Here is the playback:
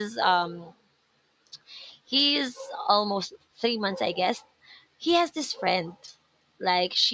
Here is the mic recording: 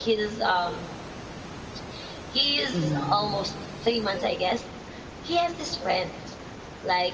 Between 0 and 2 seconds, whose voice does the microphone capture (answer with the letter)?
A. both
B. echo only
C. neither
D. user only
B